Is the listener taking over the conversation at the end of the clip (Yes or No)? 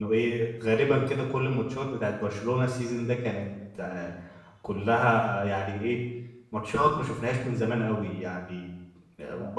No